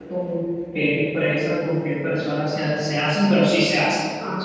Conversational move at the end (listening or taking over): listening